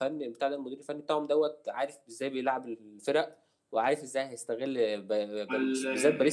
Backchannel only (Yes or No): Yes